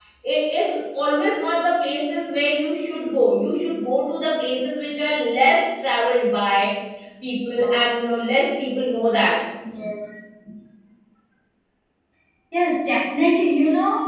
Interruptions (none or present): none